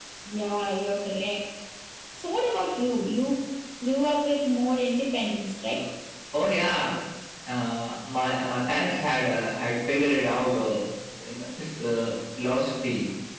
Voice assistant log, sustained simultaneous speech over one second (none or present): none